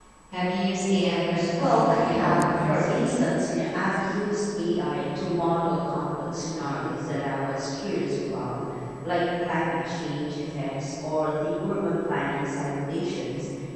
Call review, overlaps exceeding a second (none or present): present